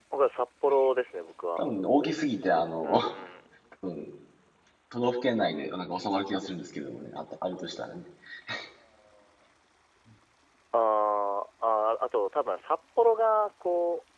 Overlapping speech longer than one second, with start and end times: none

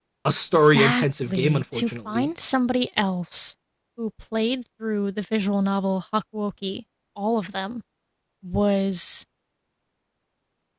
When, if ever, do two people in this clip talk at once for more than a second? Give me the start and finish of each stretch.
0.6-2.3

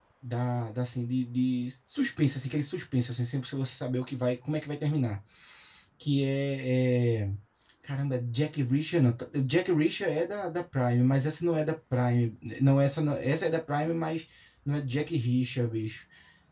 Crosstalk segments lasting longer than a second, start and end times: none

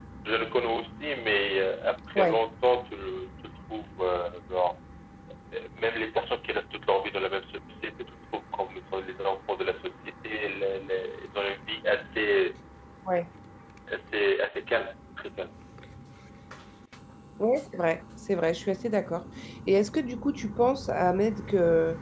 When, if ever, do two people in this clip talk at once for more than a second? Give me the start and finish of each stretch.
none

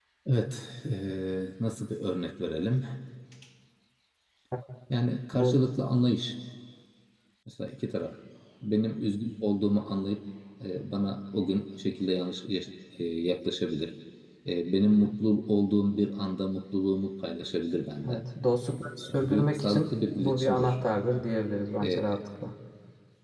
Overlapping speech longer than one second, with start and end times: 19.1-20.8

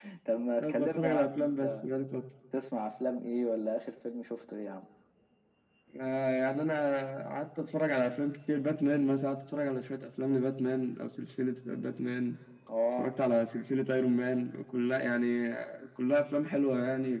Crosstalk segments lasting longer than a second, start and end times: 0.6-1.8

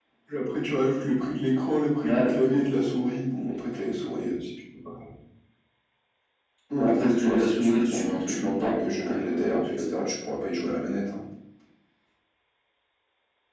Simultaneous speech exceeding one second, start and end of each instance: 2.0-3.6, 6.8-10.0

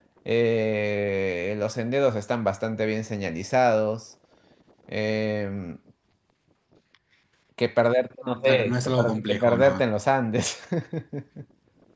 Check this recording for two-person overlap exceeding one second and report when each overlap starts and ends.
8.2-9.8

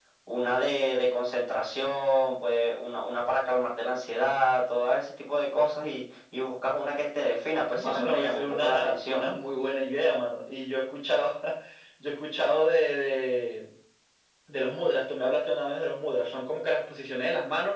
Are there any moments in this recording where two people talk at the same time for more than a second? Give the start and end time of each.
7.8-9.3

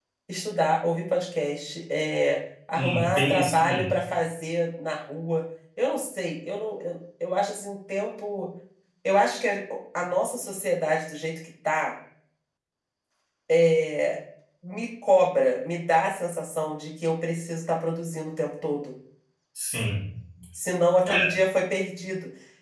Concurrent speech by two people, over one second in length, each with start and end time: 2.7-3.9

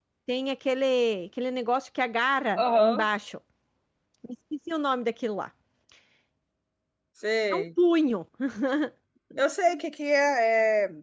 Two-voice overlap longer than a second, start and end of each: none

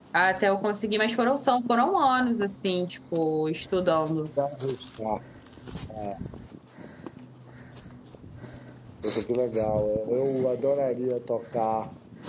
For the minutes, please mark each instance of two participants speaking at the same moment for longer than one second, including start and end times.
none

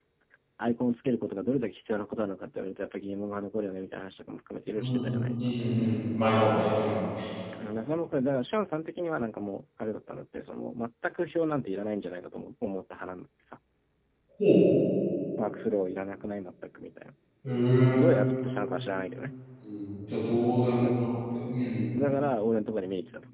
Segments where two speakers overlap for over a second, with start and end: none

